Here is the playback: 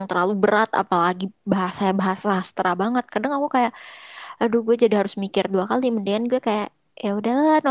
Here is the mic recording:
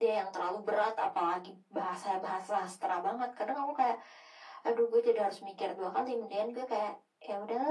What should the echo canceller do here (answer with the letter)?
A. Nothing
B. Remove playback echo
B